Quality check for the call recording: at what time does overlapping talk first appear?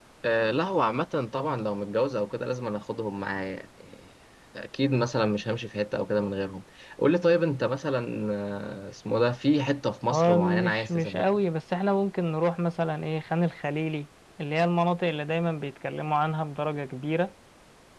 10.1 s

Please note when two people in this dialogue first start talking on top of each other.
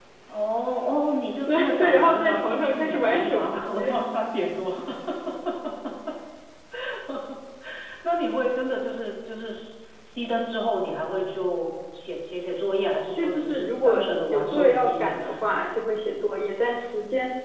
1.5 s

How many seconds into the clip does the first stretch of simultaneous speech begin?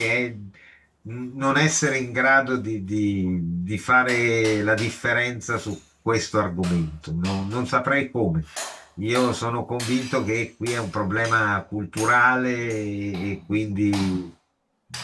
none

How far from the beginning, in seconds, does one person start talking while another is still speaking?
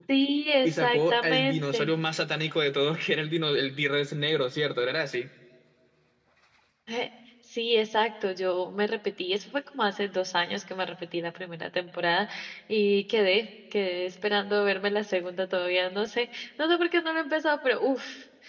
0.6 s

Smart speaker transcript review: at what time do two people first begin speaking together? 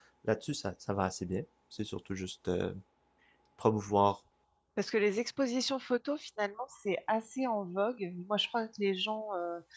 none

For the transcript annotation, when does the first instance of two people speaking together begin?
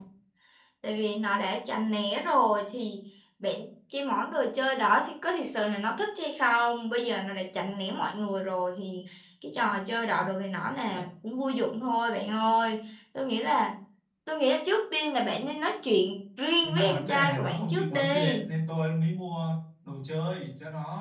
16.6 s

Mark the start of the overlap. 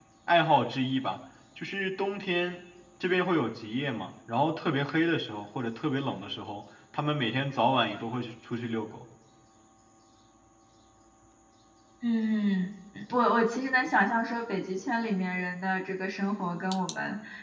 none

